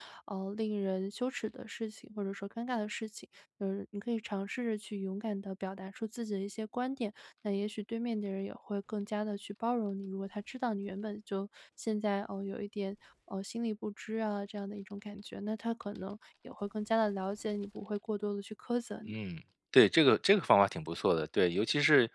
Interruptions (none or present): none